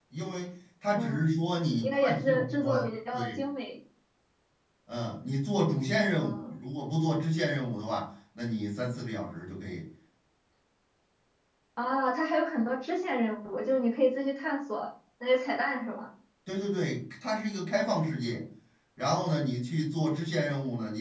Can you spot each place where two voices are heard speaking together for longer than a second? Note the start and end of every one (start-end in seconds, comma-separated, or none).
1.8-3.4